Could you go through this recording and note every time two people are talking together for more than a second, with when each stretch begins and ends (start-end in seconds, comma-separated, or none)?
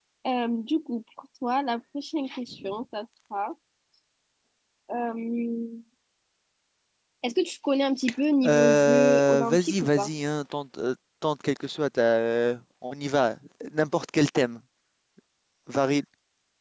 8.4-10.1